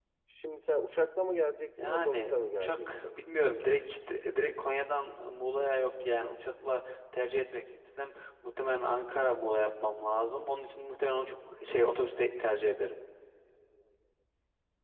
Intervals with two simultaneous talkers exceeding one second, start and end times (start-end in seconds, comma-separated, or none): 1.8-3.2